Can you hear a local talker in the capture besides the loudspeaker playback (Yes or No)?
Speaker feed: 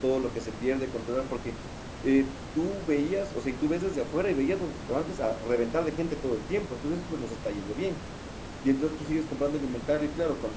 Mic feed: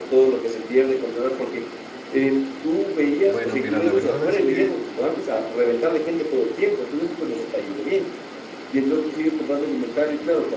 Yes